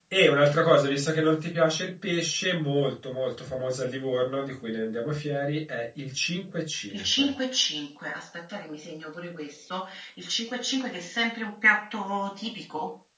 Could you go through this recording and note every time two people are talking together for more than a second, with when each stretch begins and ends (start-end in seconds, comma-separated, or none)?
none